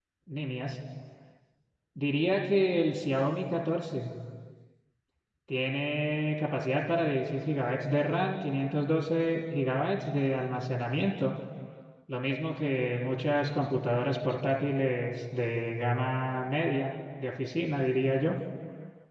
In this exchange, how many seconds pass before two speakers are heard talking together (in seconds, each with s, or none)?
none